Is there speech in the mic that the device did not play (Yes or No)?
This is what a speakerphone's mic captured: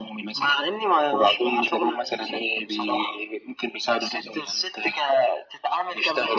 No